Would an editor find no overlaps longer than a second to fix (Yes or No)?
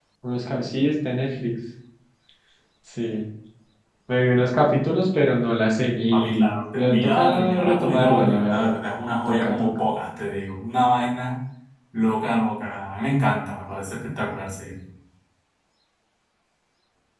No